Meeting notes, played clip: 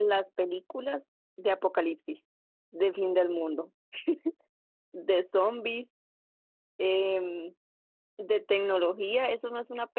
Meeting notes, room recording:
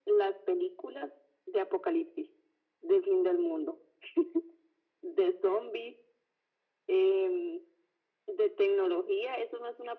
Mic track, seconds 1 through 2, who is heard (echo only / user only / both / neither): echo only